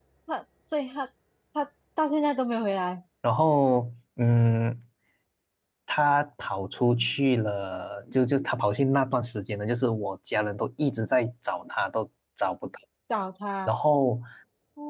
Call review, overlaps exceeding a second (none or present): none